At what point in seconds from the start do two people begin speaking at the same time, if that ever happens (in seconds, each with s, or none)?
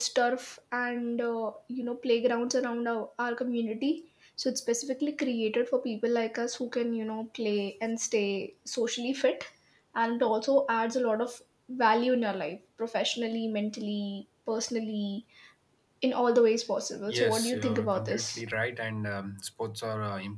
17.1 s